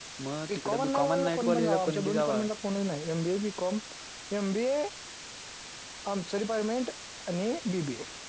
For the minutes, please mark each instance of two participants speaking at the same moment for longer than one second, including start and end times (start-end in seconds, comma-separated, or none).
0.6-2.4